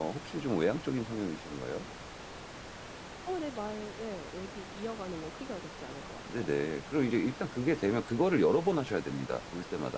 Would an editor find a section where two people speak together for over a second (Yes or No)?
No